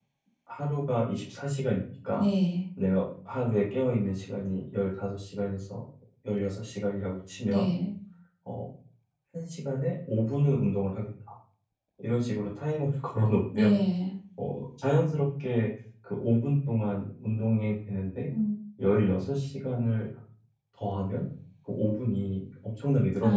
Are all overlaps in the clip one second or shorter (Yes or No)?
Yes